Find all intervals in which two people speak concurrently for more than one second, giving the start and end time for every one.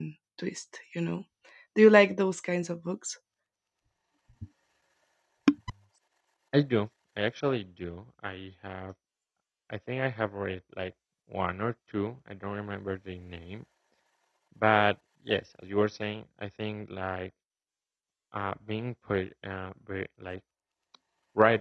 none

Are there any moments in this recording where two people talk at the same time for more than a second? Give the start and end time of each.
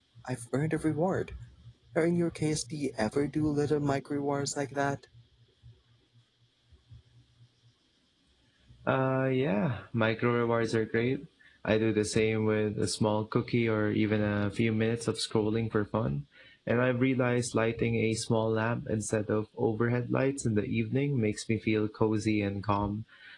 none

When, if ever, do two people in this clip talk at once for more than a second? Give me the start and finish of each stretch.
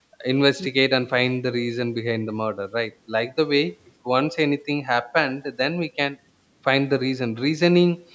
none

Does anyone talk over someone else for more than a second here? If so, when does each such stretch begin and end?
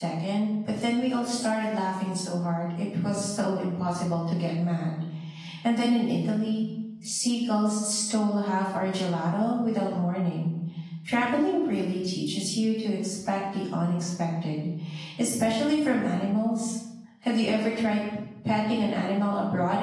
none

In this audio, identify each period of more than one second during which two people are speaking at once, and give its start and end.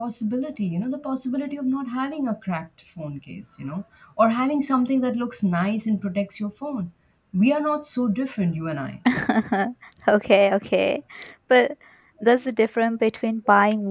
none

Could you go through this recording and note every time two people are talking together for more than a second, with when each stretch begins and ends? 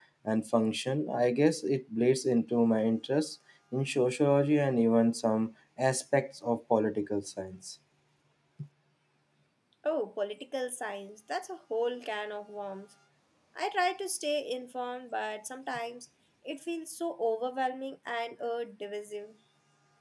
none

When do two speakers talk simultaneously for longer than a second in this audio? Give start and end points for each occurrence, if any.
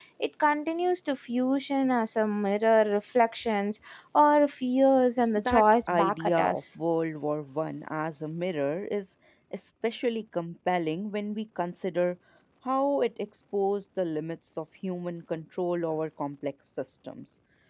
5.4-6.6

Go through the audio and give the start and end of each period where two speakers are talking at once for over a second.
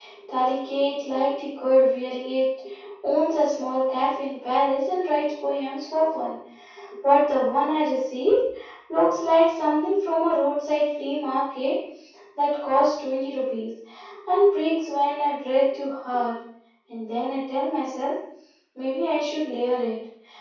none

